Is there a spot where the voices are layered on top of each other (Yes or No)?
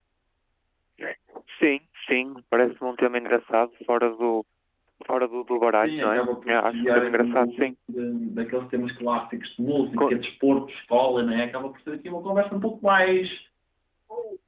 Yes